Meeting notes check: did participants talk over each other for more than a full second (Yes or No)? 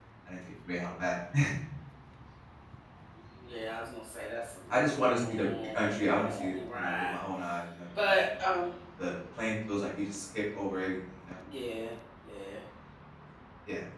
Yes